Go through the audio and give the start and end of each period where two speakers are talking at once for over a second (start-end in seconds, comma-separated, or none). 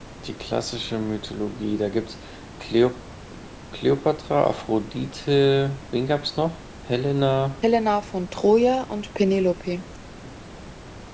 none